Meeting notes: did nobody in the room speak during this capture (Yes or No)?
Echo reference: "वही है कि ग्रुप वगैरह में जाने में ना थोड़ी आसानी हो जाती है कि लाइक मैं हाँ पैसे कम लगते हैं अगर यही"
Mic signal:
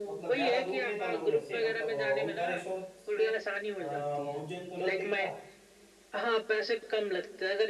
No